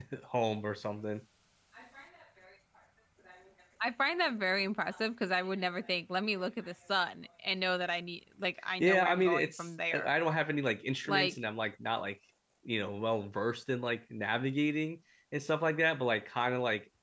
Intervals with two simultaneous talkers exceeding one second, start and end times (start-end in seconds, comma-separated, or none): 8.8-10.1